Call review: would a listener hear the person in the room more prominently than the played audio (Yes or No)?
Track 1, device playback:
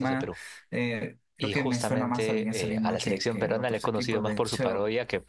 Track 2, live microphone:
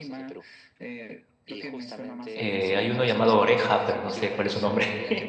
Yes